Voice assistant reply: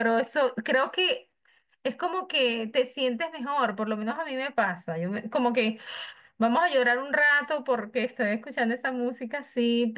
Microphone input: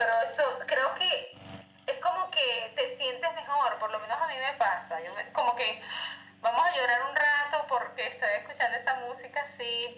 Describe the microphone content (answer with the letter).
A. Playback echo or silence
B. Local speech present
A